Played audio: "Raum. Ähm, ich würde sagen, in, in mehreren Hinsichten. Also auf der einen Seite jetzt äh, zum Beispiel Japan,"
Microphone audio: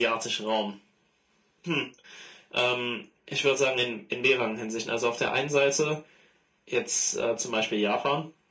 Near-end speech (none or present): none